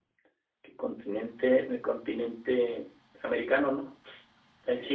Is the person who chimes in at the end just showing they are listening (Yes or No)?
Yes